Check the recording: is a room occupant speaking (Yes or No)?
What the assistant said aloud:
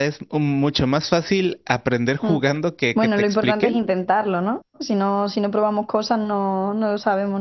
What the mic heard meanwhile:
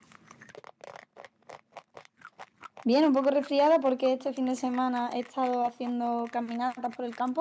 Yes